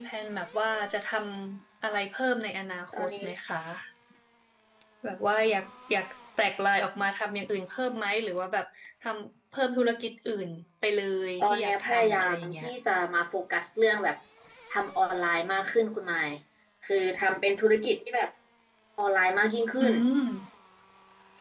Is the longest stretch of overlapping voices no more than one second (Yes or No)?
No